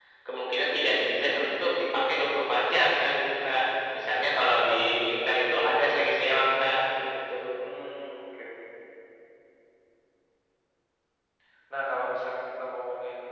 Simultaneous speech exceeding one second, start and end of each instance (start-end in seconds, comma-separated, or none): none